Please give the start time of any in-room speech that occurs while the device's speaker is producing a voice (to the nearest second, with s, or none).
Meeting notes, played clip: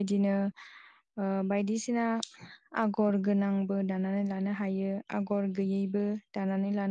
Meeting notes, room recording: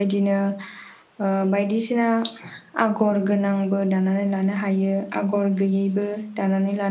none